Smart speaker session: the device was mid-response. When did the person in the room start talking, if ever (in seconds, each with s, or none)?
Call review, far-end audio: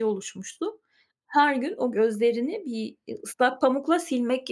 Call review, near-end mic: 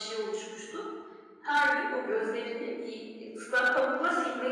none